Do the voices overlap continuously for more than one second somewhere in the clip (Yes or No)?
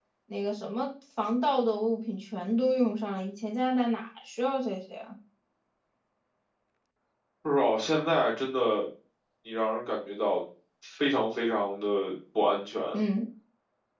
No